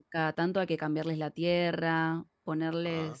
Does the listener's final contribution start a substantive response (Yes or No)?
No